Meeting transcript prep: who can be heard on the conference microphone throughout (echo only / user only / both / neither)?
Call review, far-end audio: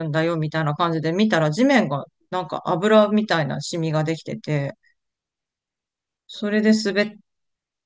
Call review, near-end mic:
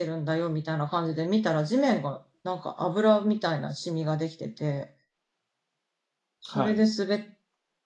both